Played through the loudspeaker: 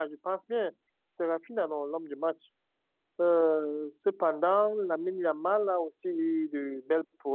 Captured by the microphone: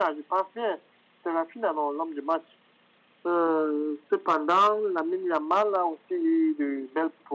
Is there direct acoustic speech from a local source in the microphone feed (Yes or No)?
No